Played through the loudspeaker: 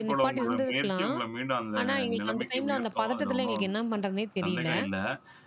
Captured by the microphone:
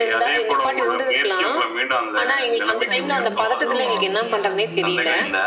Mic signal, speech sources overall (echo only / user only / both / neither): both